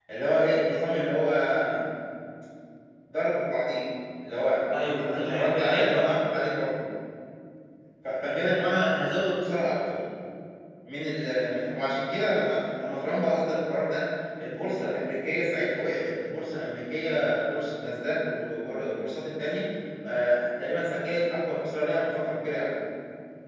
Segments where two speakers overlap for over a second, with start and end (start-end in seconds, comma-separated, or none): 4.7-6.1